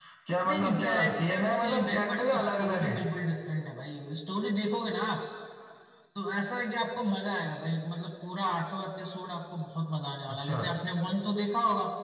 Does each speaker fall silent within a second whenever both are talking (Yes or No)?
No